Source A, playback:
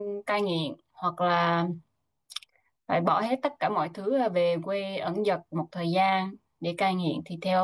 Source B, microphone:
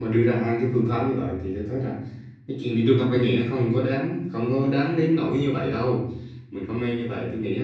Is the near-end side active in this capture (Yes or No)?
Yes